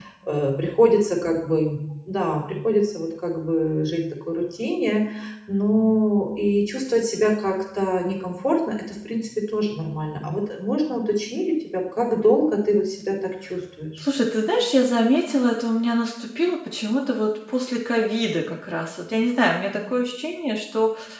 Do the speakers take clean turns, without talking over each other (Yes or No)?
Yes